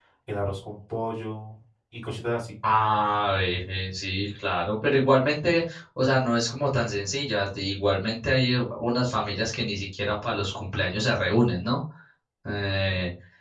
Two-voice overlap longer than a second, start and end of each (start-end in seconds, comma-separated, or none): none